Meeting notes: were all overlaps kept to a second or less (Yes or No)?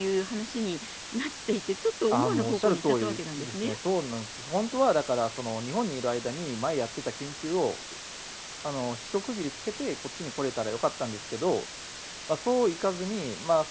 No